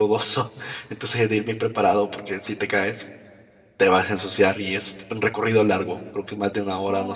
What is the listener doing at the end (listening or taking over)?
listening